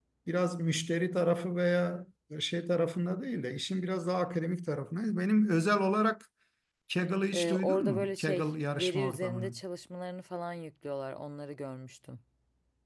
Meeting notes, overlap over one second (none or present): present